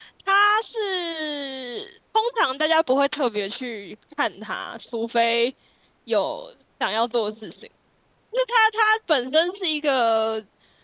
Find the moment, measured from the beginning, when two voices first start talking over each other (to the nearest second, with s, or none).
none